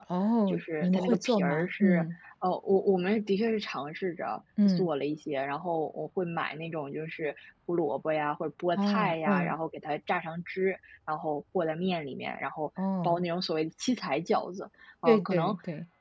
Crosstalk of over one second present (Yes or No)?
Yes